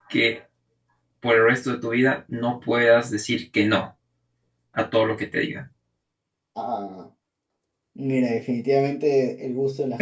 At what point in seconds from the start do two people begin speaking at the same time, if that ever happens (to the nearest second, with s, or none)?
none